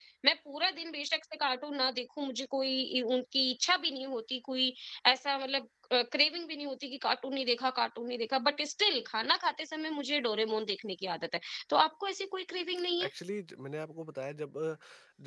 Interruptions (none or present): none